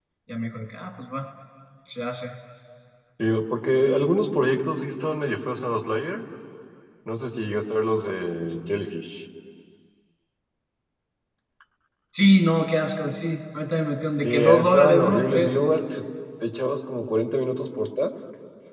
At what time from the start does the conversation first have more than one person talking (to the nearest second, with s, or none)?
14 s